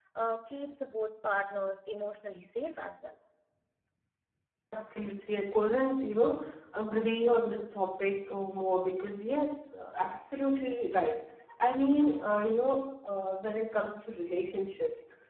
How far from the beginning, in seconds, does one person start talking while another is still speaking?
none

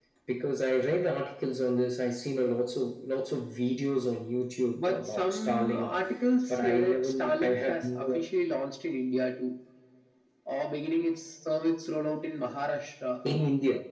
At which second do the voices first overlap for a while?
4.8 s

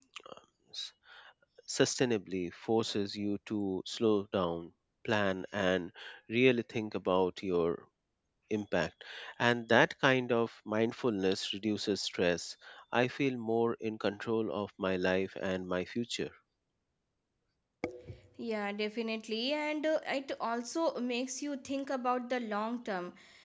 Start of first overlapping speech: none

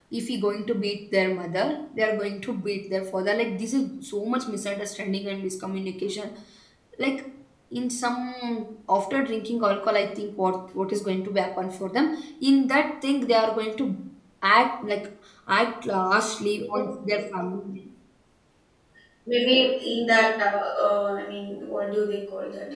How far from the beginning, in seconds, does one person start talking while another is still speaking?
none

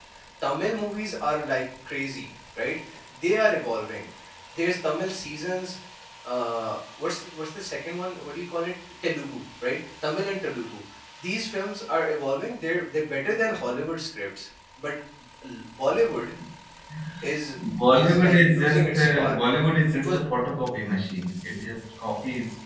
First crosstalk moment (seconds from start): 17.9 s

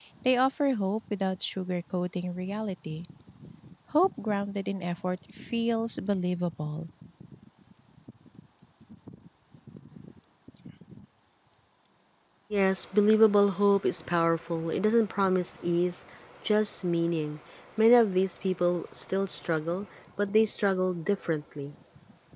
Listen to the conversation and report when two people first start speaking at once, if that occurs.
none

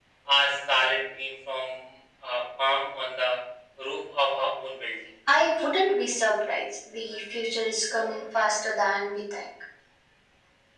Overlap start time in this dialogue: none

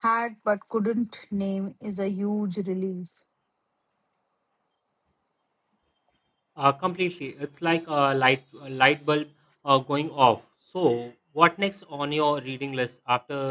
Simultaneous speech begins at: none

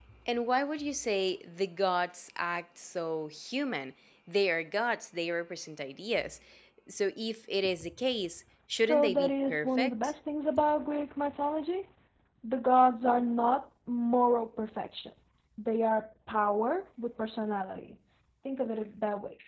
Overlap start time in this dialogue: 8.8 s

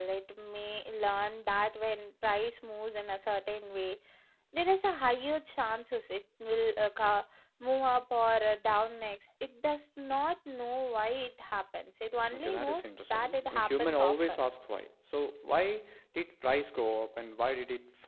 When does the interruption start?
12.3 s

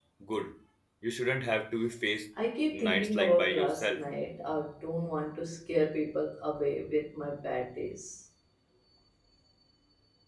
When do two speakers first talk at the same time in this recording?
2.7 s

